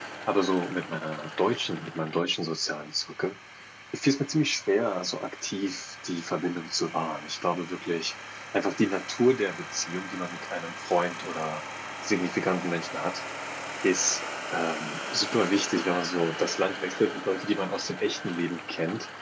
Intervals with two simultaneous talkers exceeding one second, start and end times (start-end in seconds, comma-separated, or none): none